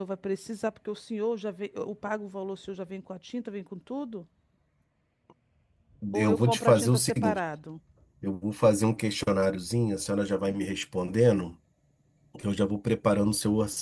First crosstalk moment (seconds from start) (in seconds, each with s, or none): 6.1 s